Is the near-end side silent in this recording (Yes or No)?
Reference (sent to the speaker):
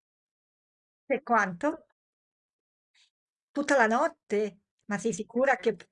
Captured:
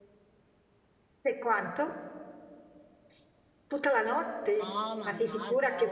No